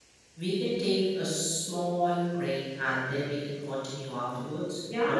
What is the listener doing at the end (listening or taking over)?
taking over